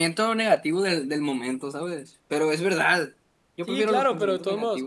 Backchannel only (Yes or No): No